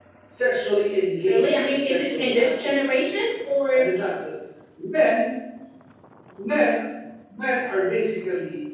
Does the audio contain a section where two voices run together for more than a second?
Yes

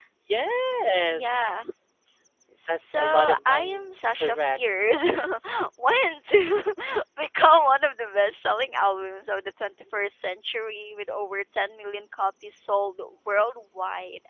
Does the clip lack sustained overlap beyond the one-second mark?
No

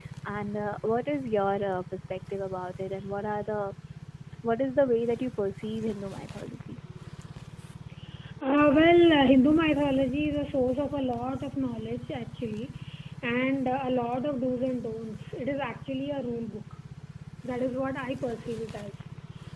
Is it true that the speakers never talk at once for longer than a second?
Yes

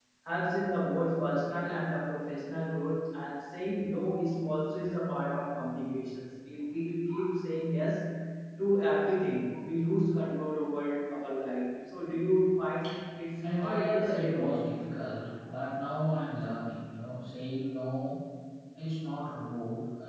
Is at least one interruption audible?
Yes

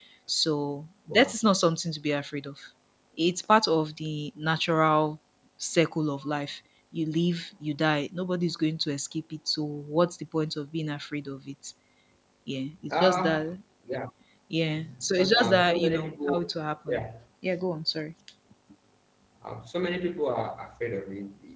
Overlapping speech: Yes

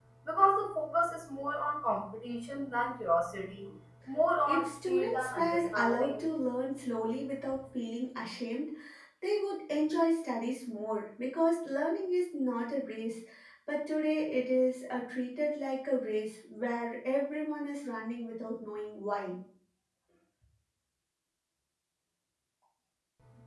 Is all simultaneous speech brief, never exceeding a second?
No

